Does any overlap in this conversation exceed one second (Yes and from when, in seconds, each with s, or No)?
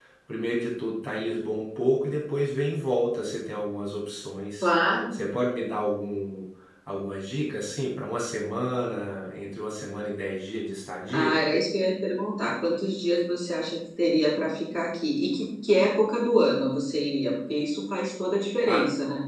No